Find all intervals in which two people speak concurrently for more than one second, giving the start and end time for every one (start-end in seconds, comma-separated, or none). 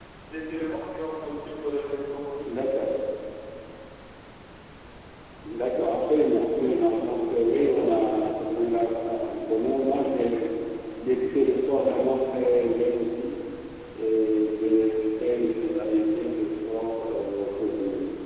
none